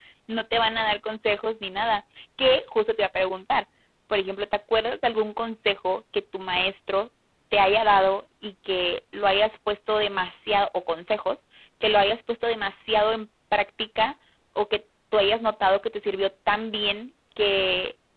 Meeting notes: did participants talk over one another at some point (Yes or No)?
No